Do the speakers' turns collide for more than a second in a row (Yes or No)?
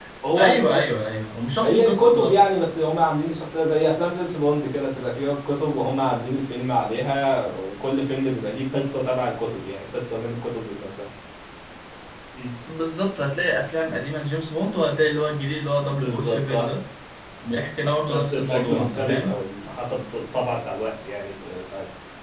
Yes